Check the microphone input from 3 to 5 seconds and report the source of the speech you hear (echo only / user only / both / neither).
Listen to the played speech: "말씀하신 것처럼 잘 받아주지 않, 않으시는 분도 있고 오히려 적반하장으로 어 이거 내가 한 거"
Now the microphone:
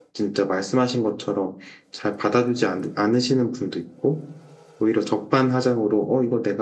echo only